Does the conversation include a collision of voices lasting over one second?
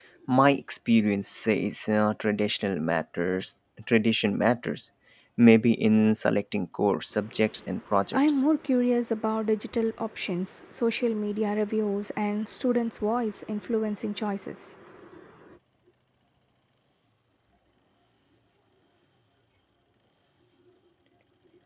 No

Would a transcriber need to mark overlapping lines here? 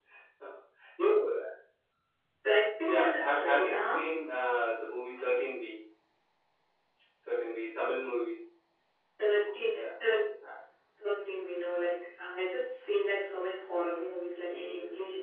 Yes, from 2.8 s

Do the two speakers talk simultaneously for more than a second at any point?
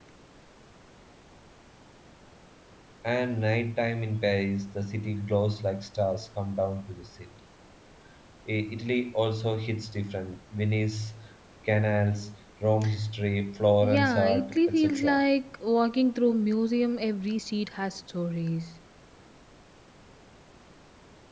Yes, from 13.8 s

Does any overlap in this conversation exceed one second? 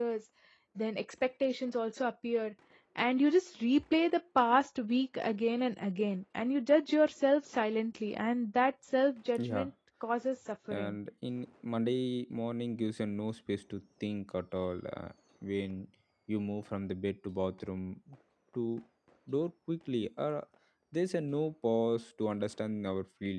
No

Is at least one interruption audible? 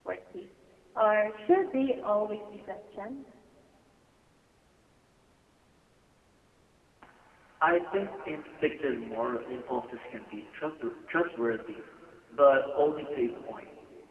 No

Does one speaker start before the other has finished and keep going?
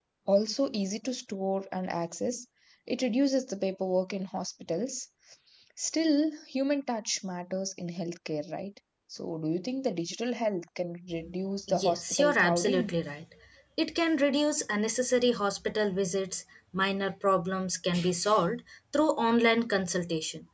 Yes, from 11.7 s

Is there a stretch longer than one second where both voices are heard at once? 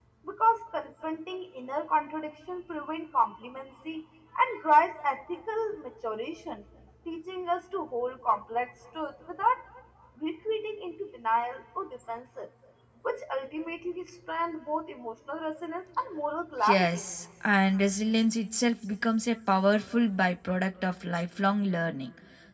No

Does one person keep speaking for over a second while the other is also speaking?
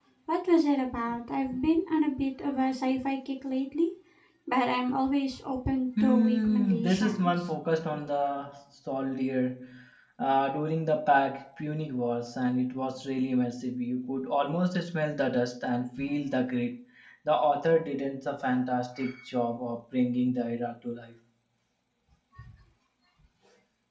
Yes, from 6.0 s

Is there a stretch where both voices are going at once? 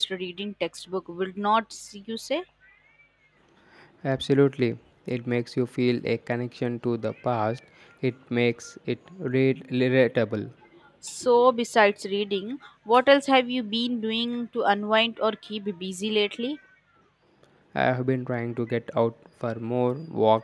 No

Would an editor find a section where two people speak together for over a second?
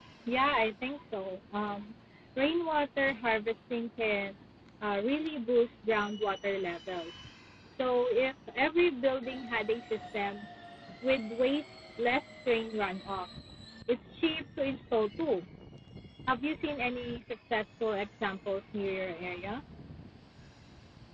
No

